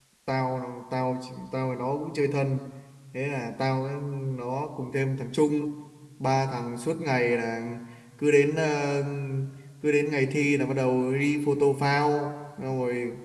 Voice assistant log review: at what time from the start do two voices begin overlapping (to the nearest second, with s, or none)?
none